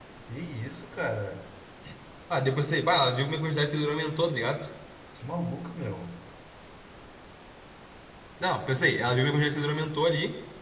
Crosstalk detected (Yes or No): No